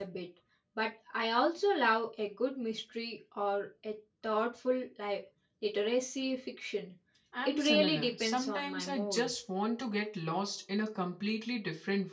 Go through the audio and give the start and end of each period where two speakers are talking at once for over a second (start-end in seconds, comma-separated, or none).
7.4-9.3